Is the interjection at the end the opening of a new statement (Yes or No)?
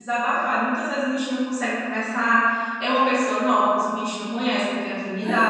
Yes